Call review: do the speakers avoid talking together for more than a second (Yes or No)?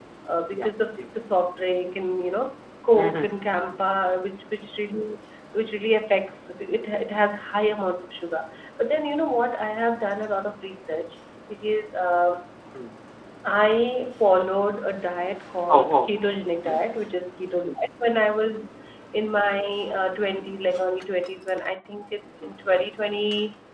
Yes